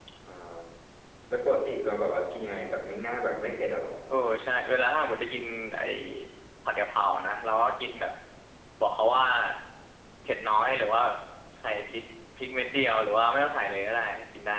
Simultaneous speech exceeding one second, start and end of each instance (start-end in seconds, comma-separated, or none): none